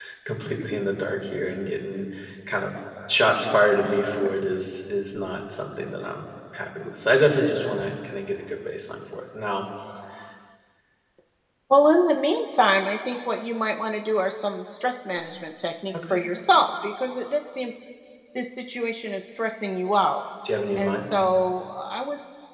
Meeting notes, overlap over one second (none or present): none